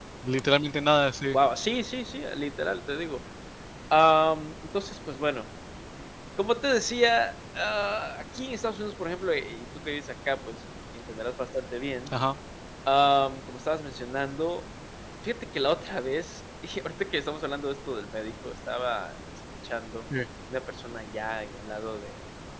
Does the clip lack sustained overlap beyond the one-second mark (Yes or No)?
Yes